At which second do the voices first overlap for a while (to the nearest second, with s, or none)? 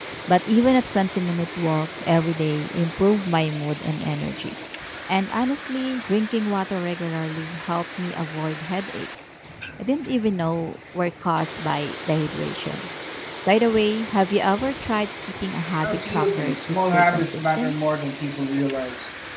16 s